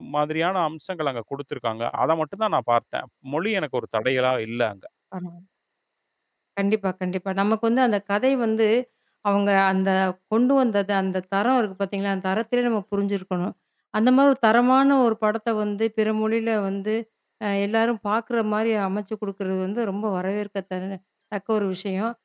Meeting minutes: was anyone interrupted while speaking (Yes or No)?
No